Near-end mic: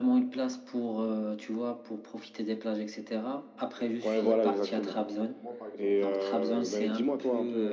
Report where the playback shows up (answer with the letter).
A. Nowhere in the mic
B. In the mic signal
B